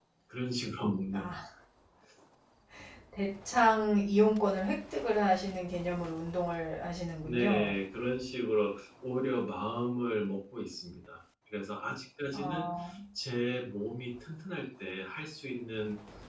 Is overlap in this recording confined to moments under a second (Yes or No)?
Yes